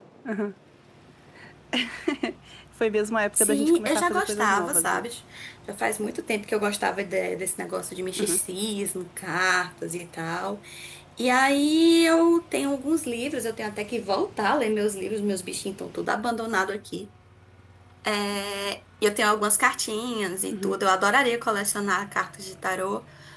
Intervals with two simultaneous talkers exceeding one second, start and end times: 3.4-5.0

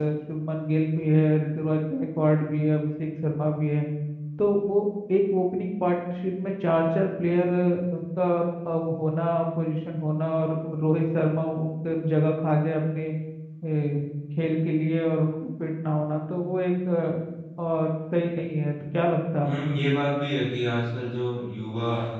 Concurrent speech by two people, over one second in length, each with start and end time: none

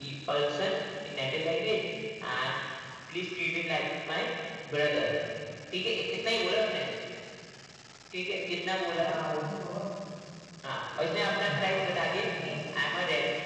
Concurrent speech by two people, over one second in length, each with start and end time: 11.0-12.8

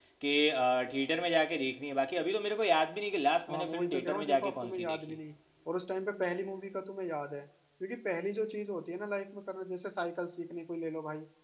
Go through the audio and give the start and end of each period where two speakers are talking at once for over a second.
3.5-5.0

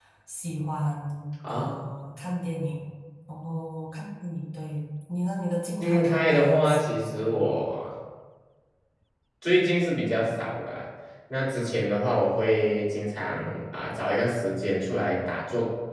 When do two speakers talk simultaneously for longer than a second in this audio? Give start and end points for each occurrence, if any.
5.8-7.5

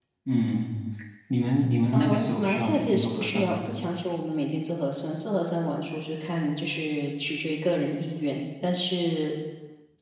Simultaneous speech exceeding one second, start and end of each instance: 1.9-3.6

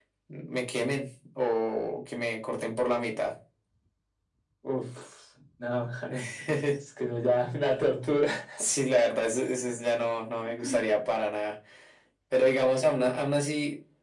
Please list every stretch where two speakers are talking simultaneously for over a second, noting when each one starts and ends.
none

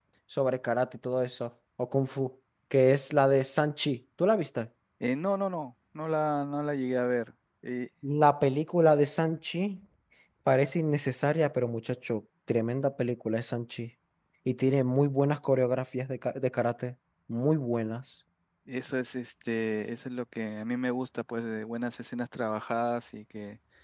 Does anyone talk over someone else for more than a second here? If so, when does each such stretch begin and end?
none

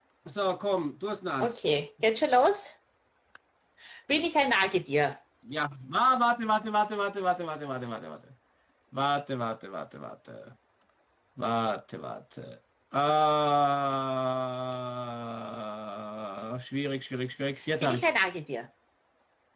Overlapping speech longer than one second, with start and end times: none

